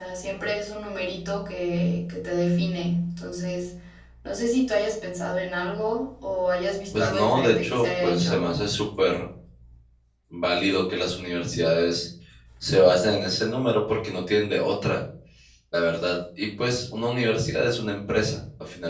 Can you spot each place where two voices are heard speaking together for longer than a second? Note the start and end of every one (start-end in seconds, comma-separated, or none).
6.9-8.4